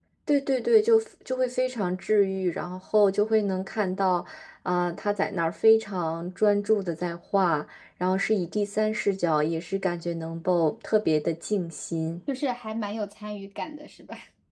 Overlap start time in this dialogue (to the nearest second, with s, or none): none